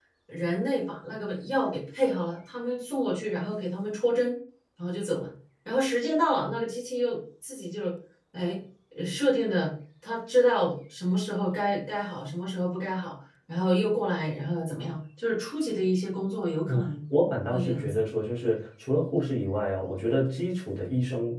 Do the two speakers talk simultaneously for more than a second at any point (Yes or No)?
No